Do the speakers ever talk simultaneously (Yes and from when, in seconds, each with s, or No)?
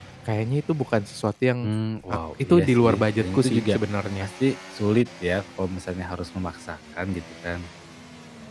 Yes, from 2.1 s